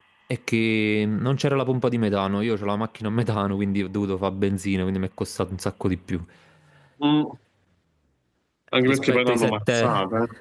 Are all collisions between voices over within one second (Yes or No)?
No